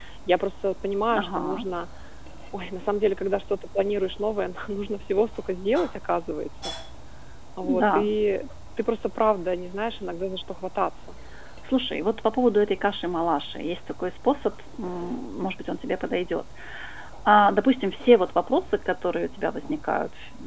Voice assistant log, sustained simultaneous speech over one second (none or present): none